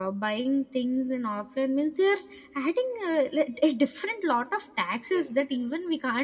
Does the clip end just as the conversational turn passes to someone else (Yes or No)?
No